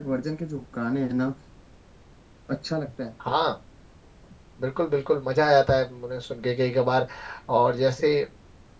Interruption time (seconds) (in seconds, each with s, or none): none